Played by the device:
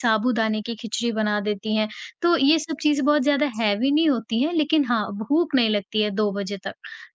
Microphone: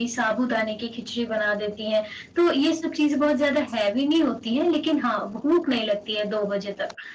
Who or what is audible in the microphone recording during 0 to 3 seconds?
echo only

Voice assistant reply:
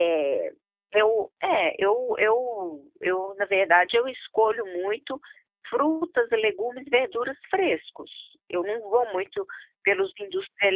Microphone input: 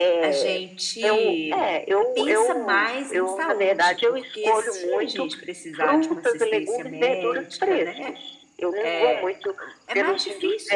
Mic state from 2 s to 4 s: both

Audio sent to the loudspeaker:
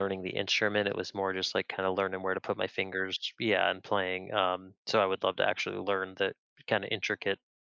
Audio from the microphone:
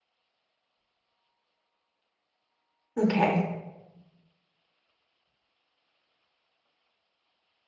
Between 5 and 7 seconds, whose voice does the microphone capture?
neither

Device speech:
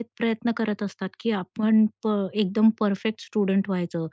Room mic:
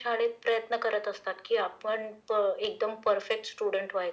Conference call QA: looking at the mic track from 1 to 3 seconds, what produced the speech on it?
echo only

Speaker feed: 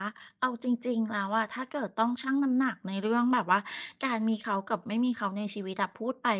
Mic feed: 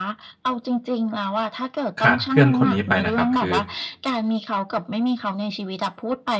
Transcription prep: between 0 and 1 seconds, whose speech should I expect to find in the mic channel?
echo only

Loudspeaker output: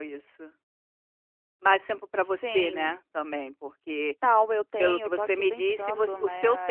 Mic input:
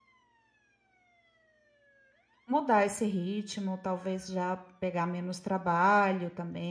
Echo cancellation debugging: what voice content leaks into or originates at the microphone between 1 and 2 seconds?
neither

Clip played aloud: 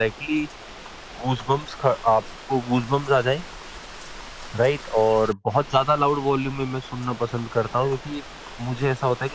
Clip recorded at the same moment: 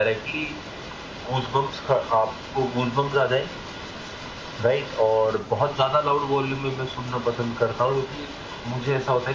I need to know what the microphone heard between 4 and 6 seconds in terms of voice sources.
echo only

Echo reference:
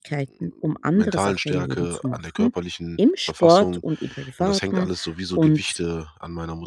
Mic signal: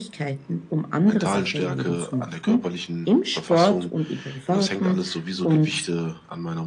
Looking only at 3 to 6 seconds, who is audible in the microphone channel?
echo only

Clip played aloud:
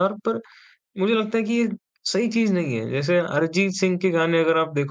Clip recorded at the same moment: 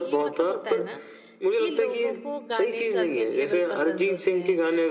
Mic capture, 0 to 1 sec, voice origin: both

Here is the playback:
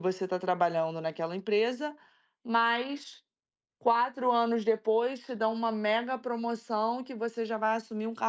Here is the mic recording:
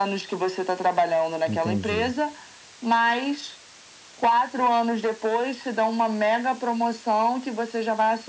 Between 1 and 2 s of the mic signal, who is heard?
both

